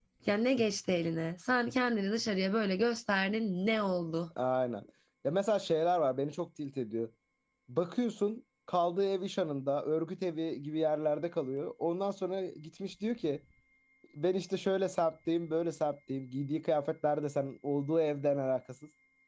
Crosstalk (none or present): none